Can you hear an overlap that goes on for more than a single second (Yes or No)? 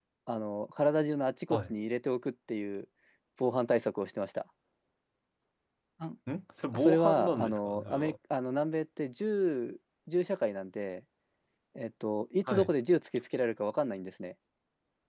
Yes